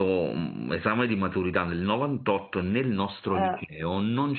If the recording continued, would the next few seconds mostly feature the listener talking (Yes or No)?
No